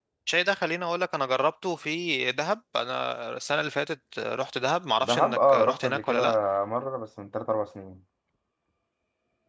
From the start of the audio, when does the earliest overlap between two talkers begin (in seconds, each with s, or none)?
5.0 s